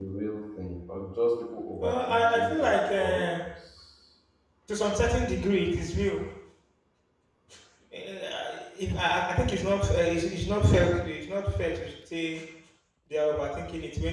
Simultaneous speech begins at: 1.8 s

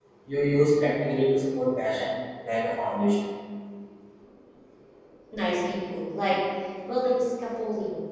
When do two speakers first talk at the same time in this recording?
none

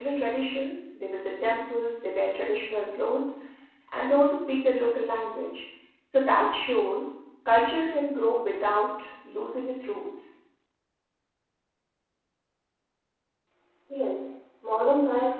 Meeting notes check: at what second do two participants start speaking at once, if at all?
none

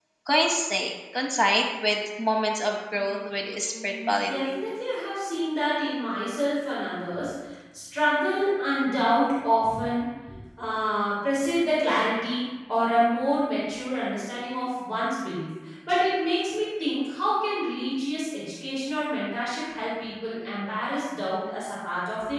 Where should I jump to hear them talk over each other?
2.9 s

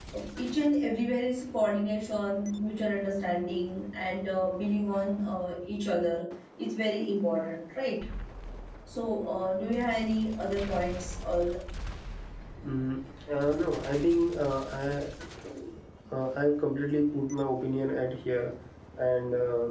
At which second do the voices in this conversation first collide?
none

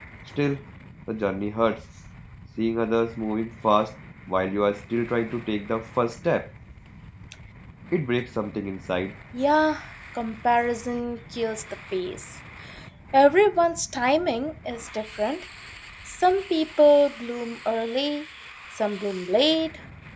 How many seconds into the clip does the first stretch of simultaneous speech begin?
none

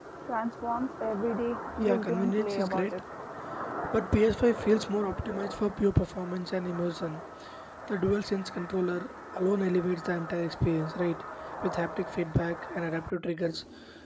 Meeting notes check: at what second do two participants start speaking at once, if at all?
1.7 s

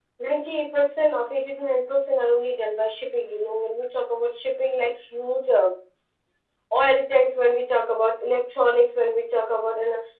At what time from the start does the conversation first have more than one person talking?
none

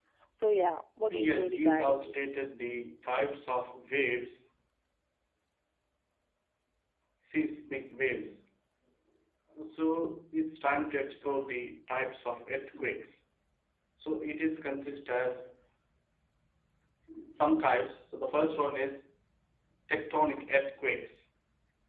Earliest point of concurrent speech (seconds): 1.1 s

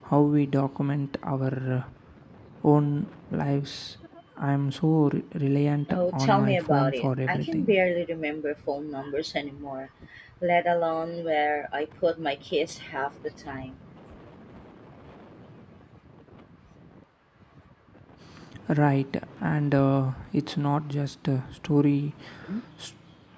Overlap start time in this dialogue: 5.9 s

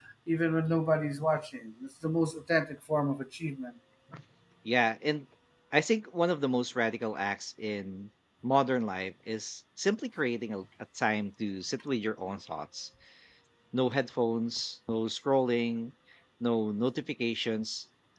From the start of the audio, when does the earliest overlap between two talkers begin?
none

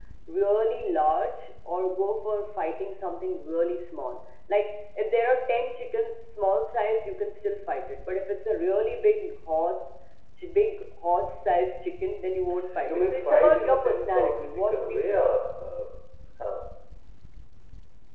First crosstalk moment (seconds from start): 12.6 s

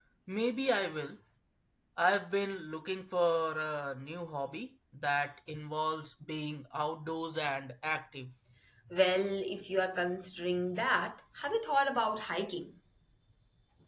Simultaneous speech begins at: none

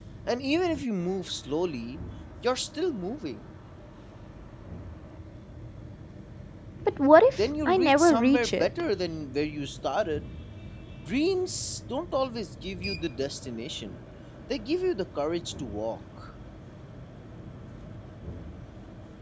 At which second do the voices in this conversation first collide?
7.3 s

